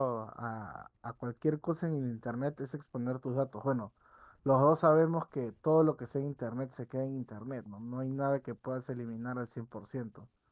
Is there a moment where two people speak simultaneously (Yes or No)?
No